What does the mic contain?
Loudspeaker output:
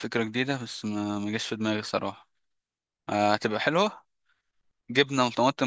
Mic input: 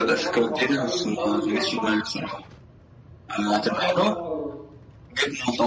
both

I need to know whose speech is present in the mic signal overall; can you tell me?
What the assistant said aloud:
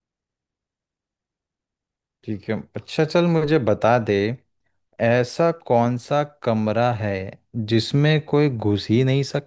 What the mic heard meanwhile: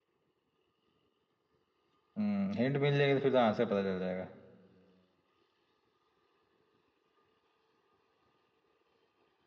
user only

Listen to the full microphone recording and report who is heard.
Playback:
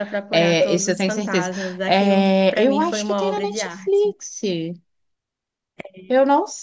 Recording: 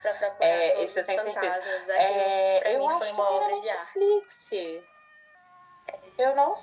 echo only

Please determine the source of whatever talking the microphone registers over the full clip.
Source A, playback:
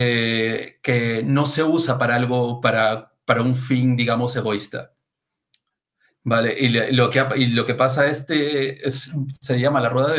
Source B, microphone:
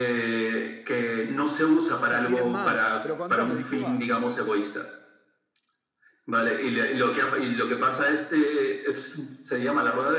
both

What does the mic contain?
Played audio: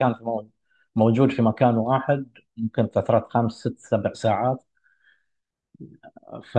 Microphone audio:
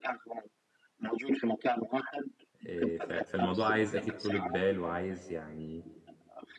both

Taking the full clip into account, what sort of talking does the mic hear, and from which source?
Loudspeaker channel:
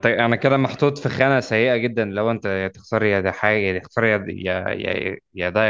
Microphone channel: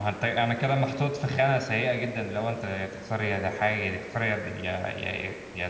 echo only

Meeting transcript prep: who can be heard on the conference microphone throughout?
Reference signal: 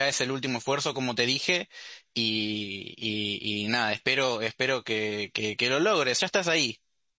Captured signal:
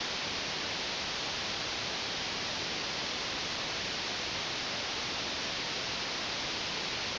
neither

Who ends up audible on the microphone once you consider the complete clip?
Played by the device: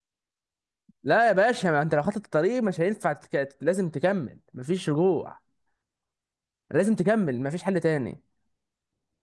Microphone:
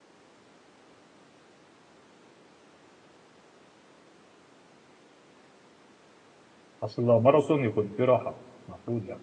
user only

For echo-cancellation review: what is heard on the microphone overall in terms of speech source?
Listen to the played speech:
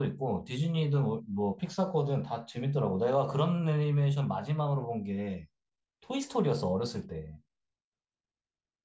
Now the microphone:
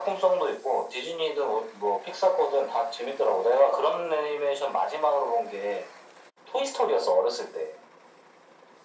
echo only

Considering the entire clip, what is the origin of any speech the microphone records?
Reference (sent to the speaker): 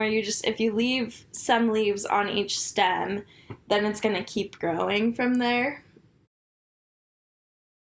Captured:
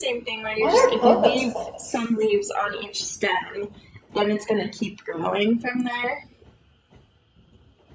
both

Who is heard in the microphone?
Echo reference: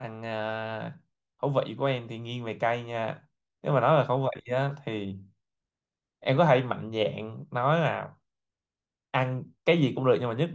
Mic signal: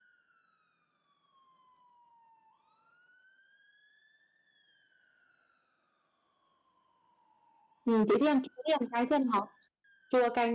user only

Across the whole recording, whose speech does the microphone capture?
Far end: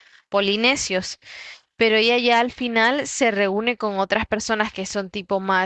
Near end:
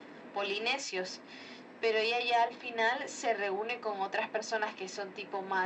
echo only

